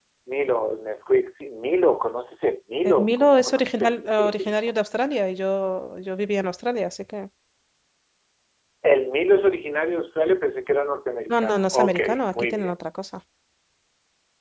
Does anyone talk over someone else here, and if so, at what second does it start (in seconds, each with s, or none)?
2.8 s